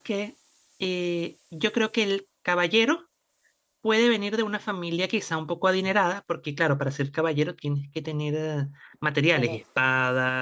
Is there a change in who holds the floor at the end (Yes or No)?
No